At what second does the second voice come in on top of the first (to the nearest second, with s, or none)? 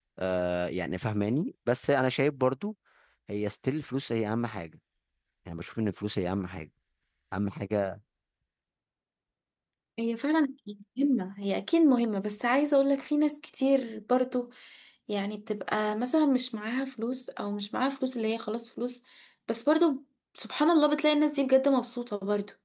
none